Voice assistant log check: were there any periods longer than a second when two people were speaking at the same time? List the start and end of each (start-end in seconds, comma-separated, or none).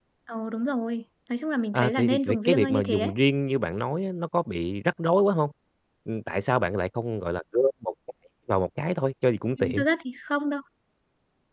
1.7-3.1